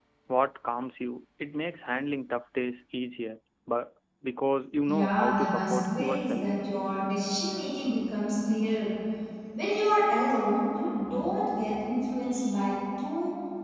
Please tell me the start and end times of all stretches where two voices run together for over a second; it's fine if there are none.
4.9-6.4

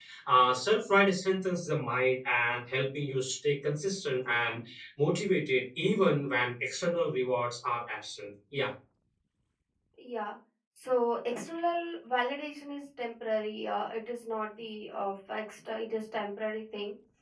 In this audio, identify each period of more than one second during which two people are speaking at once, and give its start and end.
none

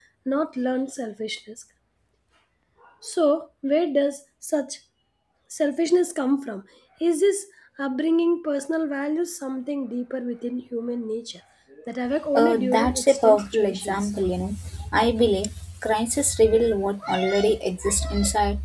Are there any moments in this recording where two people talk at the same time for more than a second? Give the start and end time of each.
12.4-14.1

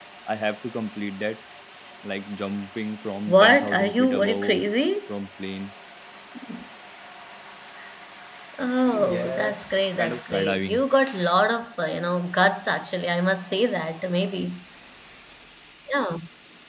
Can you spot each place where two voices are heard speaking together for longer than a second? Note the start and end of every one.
3.3-4.6, 8.9-10.8

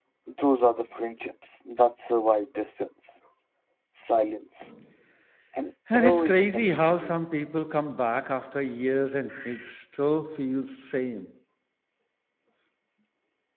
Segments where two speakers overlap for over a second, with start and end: 5.9-7.1

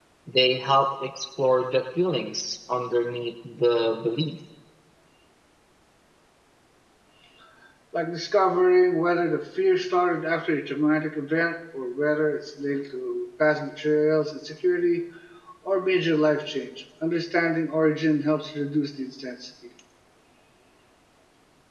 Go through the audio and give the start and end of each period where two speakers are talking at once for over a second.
none

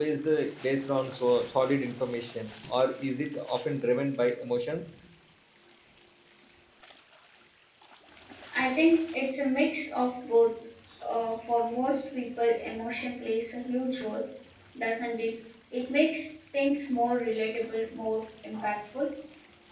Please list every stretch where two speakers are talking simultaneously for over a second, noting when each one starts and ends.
none

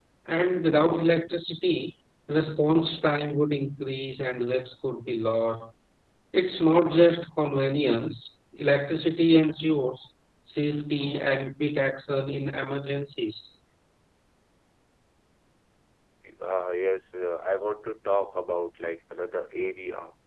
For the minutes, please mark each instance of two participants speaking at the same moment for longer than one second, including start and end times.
none

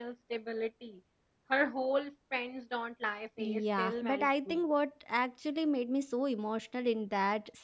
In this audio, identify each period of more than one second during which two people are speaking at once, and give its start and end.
3.4-4.6

